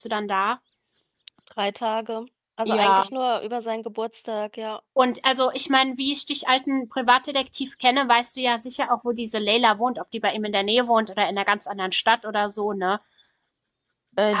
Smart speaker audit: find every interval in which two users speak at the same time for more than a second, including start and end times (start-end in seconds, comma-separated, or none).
none